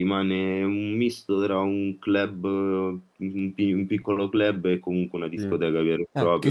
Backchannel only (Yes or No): No